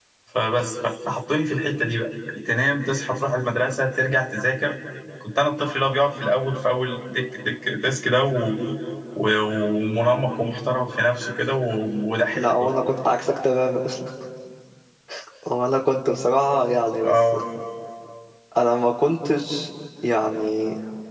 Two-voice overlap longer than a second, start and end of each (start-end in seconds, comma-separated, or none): none